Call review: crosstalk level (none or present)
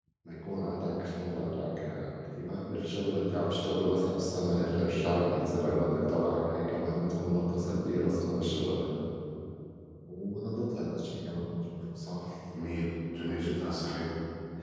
none